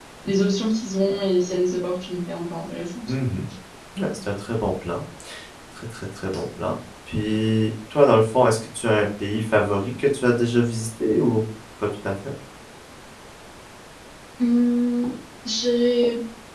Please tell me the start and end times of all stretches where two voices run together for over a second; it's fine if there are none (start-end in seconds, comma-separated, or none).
none